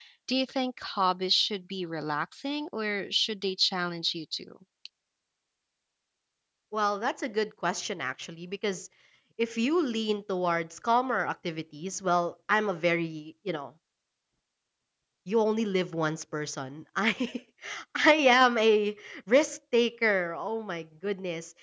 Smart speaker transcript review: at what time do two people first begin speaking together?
none

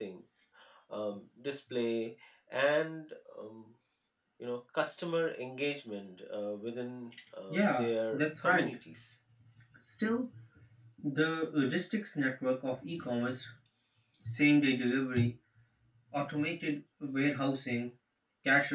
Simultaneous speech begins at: 7.5 s

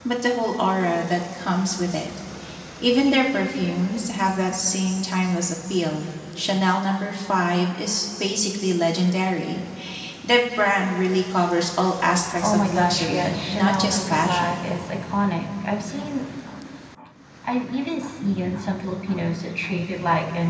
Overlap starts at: 12.4 s

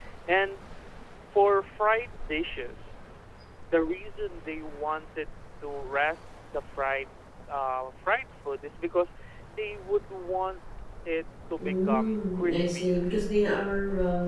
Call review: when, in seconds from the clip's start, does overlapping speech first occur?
11.6 s

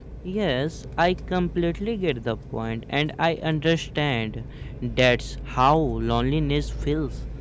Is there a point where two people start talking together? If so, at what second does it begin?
none

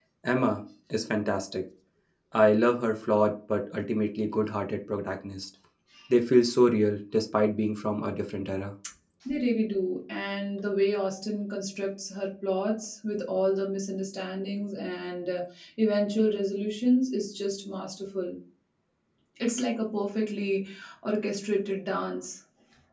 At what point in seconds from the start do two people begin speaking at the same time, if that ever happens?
none

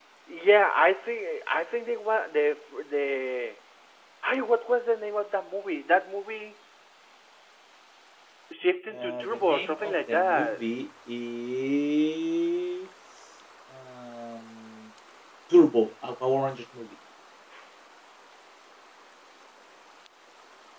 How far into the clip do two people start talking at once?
8.9 s

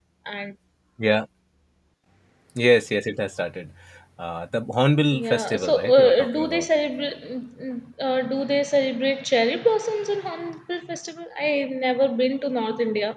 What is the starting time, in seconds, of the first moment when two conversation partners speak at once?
5.1 s

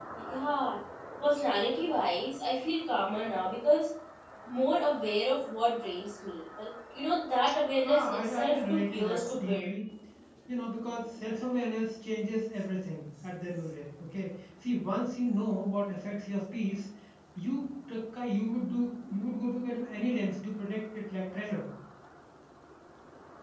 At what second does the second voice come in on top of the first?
7.8 s

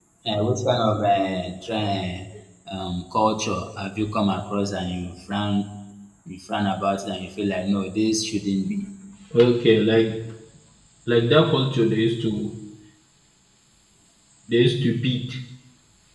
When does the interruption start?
none

